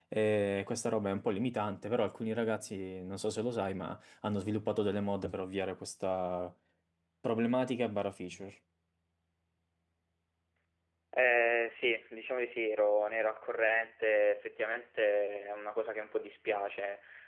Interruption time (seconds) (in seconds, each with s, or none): none